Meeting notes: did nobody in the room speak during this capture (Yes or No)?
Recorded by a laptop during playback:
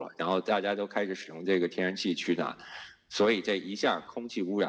Yes